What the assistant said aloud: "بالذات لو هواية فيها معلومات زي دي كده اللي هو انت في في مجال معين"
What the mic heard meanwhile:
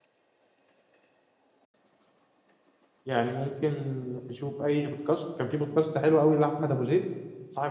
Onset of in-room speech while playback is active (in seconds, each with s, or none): 3.0 s